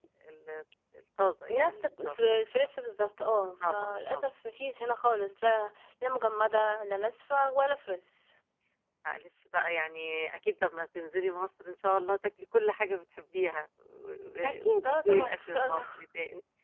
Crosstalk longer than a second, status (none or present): present